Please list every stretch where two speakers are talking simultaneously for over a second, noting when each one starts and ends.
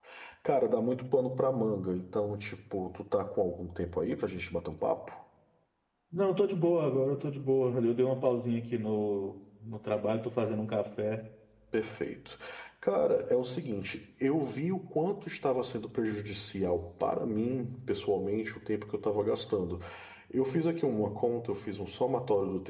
none

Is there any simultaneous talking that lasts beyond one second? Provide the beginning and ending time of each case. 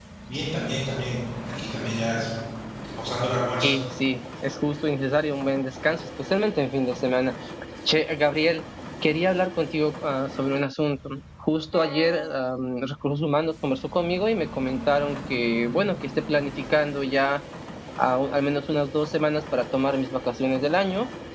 none

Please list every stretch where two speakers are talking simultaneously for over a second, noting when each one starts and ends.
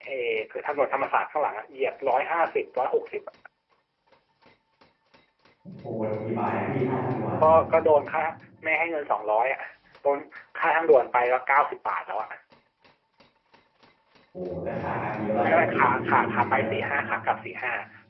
15.4-16.7

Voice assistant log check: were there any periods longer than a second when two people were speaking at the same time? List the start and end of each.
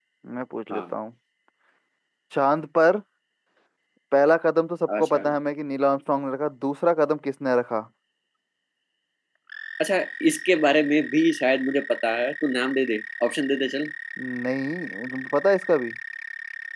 none

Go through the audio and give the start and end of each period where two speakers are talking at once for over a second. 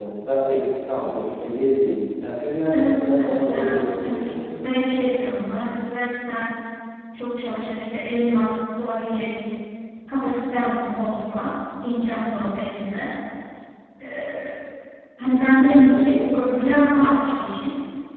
2.7-4.4

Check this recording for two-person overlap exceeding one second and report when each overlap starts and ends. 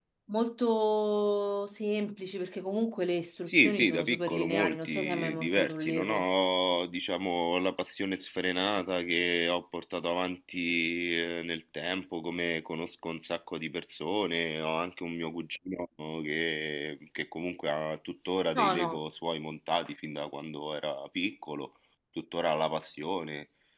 3.5-6.3

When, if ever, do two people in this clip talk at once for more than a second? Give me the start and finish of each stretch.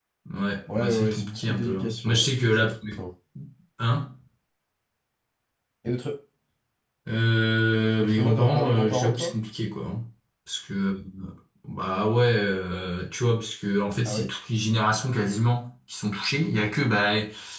0.7-2.7, 8.0-9.3

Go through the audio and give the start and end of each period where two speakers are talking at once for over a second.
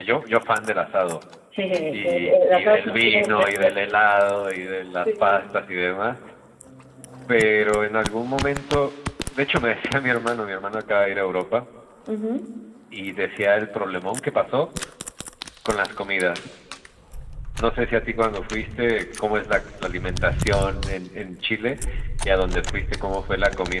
1.9-3.5

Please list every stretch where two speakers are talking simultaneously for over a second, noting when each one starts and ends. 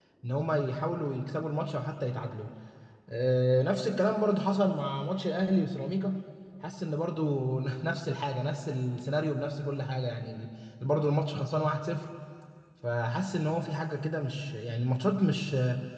none

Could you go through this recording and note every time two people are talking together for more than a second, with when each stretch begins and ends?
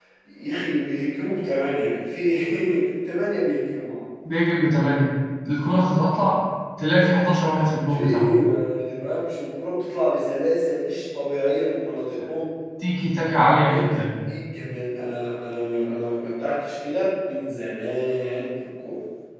none

